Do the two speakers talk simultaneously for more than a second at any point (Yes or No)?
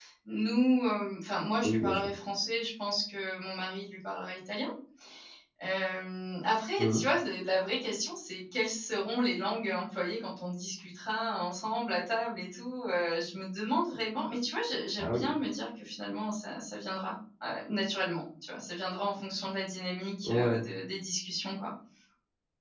No